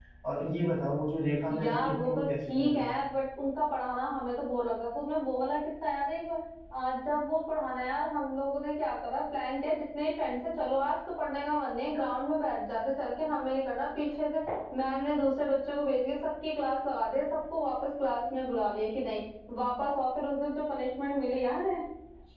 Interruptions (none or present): present